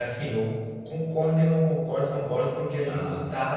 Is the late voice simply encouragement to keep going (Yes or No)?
Yes